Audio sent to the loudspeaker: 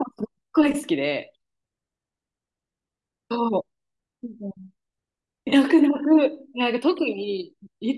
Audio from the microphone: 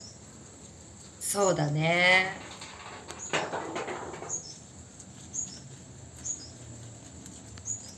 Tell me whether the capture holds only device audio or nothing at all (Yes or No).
No